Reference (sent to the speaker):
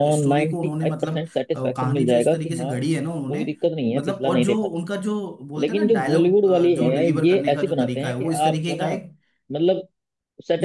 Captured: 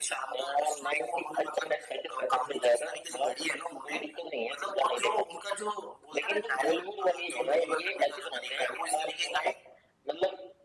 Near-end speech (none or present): none